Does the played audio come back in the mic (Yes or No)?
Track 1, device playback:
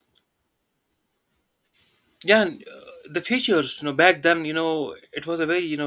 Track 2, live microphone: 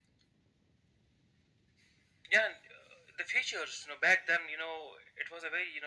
Yes